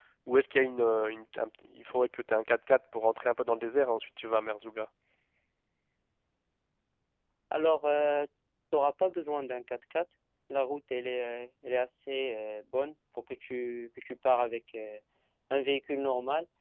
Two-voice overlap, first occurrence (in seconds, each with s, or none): none